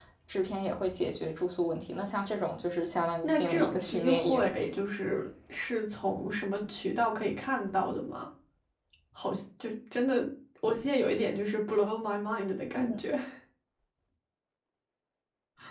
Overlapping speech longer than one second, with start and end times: 3.2-4.5

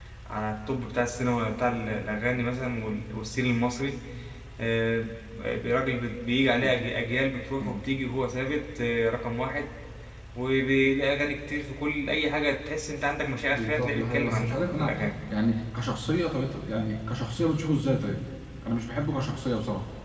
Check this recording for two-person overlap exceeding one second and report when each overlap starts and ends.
13.5-15.0

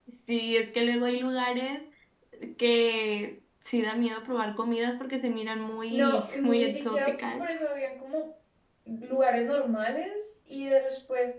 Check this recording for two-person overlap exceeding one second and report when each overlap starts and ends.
5.9-7.4

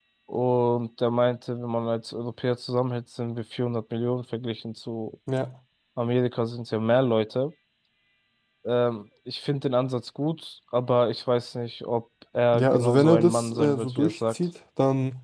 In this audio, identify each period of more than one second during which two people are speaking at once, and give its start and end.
12.5-14.3

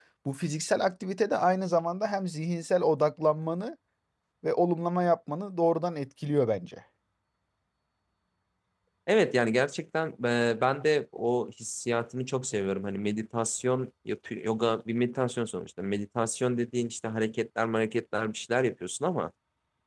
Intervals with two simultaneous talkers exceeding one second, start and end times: none

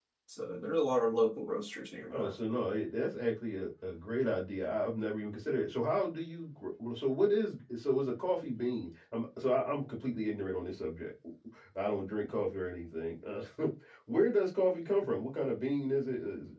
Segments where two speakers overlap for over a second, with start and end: none

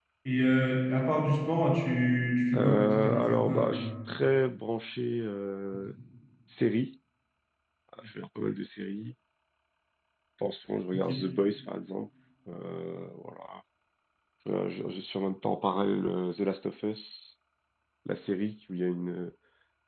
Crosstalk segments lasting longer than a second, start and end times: 2.5-3.9

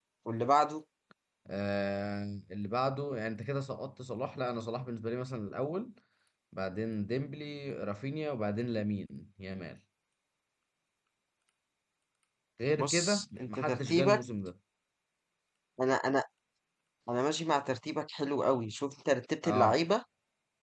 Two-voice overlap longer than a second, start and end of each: 12.8-14.2

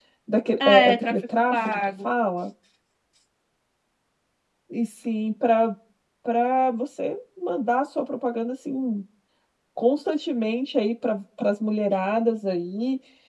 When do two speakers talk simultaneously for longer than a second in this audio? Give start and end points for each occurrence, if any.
0.7-2.0

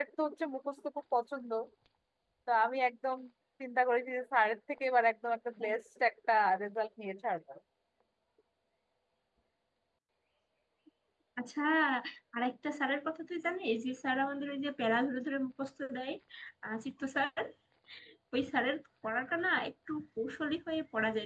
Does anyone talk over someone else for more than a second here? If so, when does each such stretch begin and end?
none

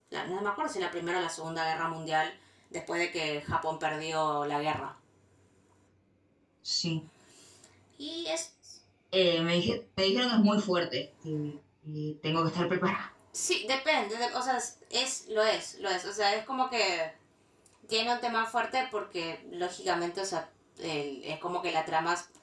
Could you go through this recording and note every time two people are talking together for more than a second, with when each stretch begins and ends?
none

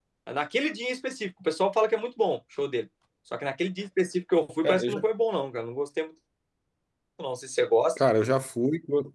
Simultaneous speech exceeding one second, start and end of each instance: none

